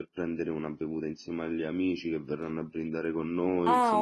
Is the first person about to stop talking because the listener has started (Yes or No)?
Yes